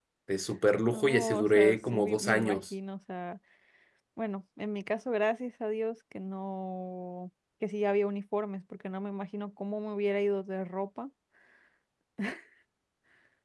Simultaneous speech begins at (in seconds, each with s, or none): 0.8 s